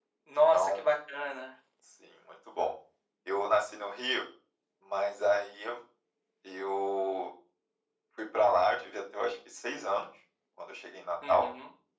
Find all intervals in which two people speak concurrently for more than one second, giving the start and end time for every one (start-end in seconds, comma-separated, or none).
none